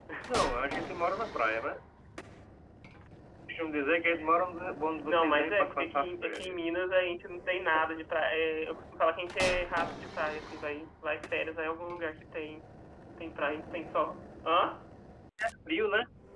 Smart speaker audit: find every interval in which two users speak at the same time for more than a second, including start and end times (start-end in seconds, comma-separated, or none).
5.1-6.6